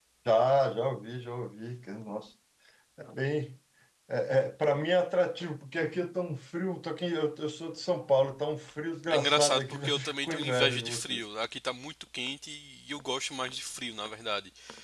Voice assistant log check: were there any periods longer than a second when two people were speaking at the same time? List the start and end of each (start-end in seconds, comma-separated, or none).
9.1-11.2